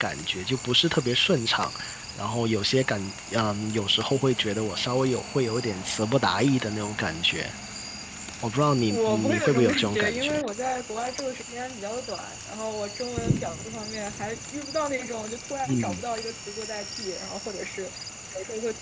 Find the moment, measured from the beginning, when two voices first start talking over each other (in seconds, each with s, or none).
8.9 s